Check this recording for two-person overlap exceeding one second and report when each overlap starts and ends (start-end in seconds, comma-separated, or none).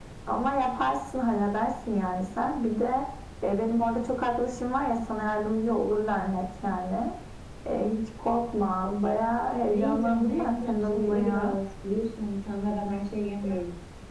9.7-11.5